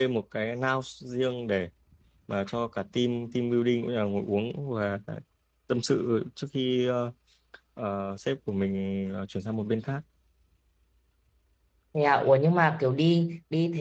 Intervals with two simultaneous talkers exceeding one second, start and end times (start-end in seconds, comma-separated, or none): none